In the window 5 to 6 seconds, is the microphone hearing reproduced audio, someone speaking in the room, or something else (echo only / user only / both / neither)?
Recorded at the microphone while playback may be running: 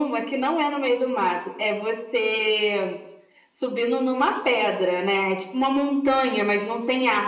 echo only